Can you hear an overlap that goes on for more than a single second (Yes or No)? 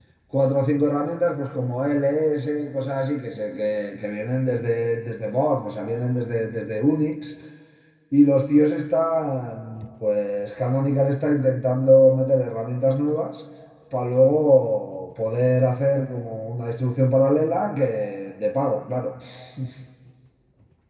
No